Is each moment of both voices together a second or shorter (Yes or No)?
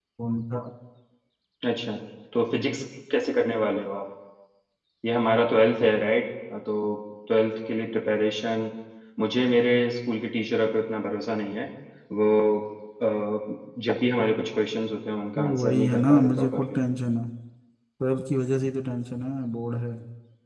No